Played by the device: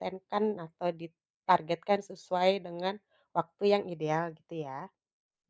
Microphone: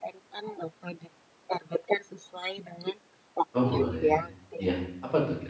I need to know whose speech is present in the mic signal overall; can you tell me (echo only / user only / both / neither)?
both